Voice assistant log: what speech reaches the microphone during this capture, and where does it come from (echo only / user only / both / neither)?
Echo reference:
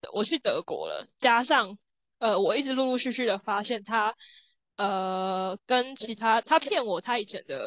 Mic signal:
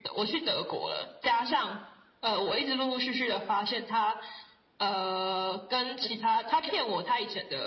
echo only